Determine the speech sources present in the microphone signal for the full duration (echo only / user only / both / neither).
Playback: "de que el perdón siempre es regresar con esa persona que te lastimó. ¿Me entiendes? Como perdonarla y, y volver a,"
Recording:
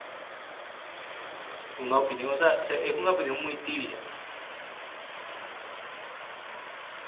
user only